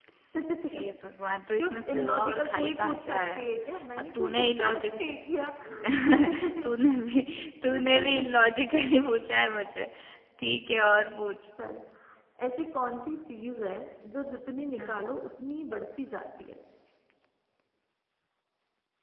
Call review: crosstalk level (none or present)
present